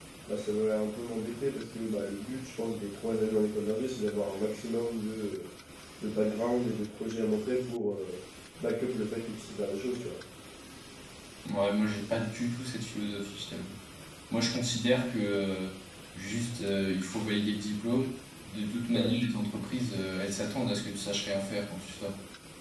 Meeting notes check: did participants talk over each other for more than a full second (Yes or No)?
No